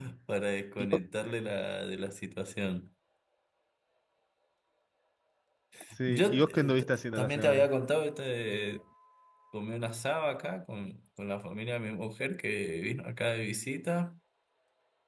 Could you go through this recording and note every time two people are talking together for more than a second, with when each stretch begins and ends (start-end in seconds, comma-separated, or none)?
6.1-7.7